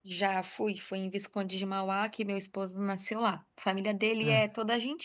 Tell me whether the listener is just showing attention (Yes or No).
Yes